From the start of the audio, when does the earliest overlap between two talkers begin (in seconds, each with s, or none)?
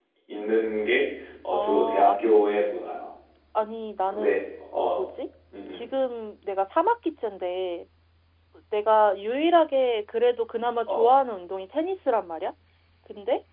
1.5 s